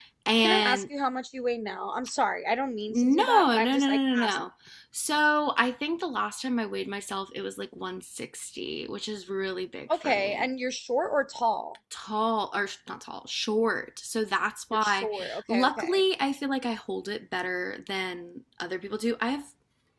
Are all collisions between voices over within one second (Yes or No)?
No